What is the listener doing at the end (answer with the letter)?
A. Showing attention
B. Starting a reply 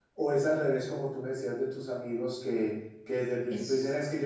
A